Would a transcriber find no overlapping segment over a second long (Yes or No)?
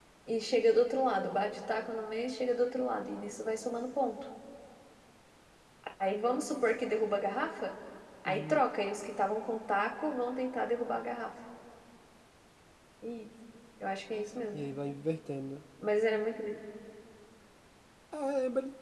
Yes